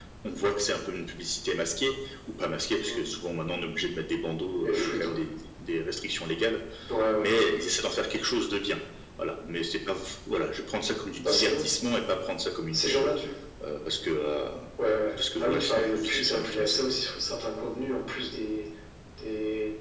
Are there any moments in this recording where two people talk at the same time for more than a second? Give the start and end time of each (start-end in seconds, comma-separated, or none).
15.4-16.8